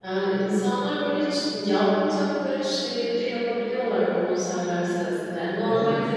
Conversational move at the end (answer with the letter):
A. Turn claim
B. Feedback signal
B